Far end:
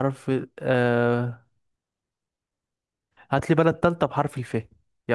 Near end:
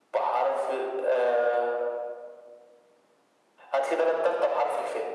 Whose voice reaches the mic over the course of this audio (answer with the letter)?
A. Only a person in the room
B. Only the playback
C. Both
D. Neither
B